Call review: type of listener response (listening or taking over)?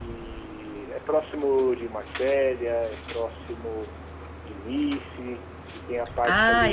taking over